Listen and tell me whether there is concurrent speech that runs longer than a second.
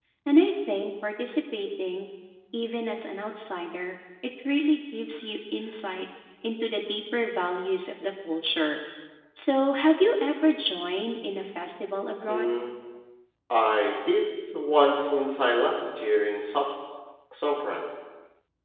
No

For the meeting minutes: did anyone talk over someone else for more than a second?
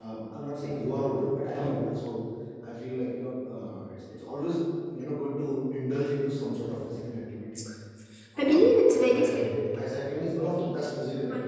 Yes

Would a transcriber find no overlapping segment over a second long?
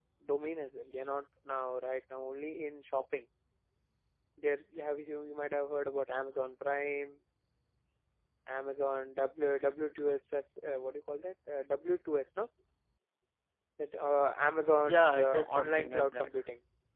No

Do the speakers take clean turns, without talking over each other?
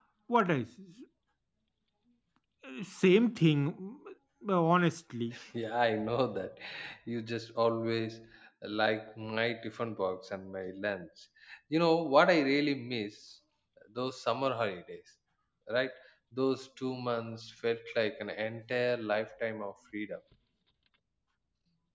Yes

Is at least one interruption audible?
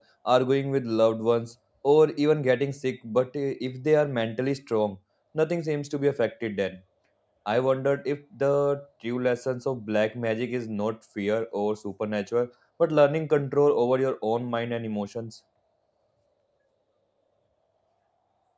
No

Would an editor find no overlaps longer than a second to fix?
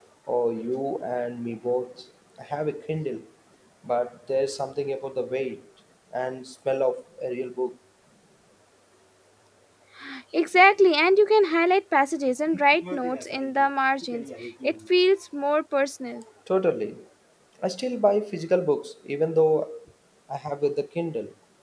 Yes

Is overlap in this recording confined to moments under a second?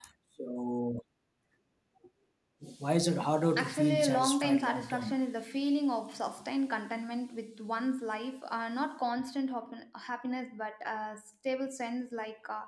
No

